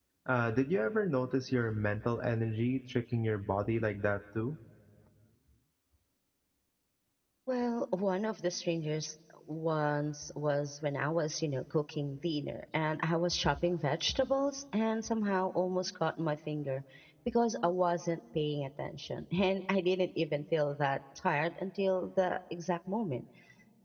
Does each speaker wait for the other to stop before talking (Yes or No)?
Yes